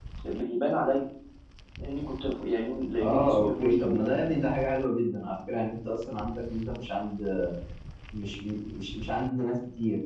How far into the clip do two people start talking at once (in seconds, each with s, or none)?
3.0 s